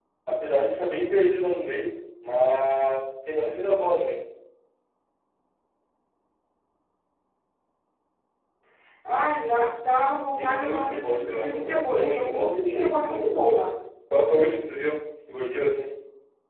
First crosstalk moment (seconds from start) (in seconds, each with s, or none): 10.4 s